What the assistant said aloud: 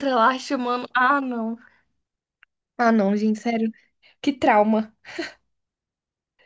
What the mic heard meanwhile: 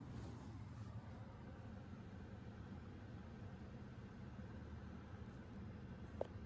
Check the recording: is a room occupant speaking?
No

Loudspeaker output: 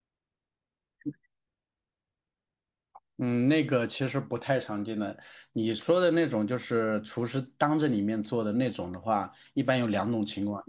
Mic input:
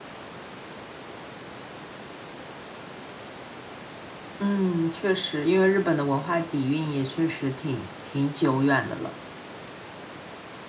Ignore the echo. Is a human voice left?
Yes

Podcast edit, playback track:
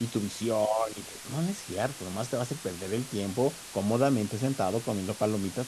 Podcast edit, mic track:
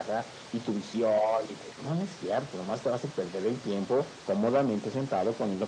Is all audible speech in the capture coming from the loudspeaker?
Yes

